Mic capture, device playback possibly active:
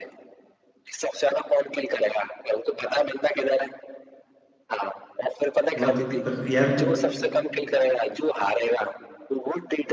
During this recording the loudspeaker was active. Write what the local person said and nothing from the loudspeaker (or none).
व- पर यार कु-